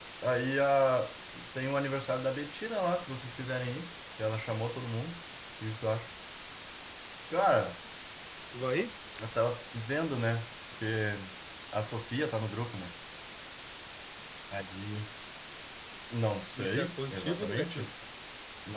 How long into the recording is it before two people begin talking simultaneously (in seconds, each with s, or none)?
16.6 s